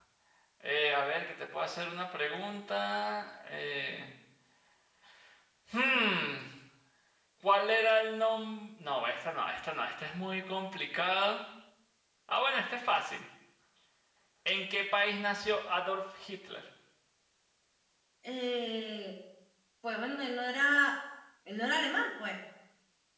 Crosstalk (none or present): none